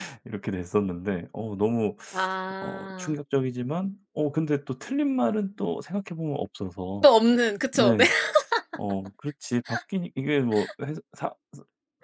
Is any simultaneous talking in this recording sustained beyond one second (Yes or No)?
No